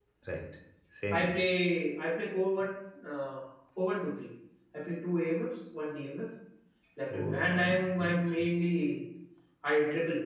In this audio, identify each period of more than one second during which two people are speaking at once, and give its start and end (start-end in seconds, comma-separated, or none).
7.1-8.5